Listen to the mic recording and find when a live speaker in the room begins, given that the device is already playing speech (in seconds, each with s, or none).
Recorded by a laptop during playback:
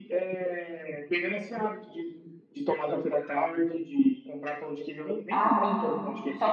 5.3 s